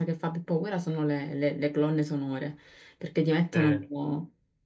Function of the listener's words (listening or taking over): listening